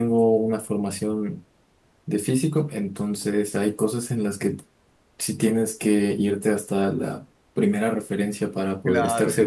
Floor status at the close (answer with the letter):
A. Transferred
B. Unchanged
B